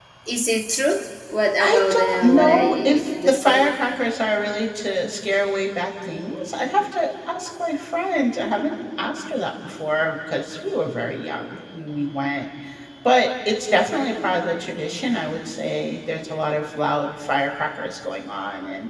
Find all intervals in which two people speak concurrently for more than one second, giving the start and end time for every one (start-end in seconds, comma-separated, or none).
1.6-3.7